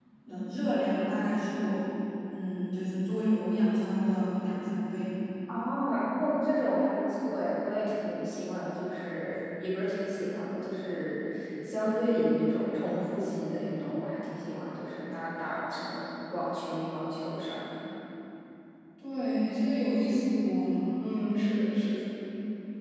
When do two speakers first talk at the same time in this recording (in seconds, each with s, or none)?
none